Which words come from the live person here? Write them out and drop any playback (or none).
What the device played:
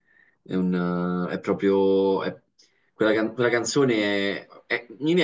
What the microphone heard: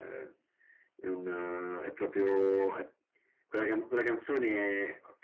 none